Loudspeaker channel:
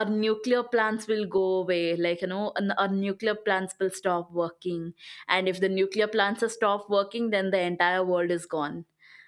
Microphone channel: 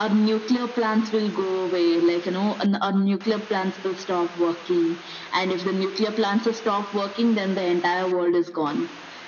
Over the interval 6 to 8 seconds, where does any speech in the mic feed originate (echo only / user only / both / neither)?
echo only